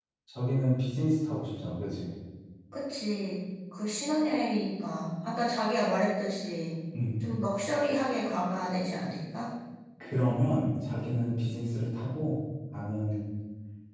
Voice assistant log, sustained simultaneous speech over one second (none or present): none